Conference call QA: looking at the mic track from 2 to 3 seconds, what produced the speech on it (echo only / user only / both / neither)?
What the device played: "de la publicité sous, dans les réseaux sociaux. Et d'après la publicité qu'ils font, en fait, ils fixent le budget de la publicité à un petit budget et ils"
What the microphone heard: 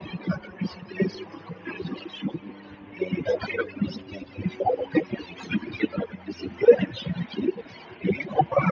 echo only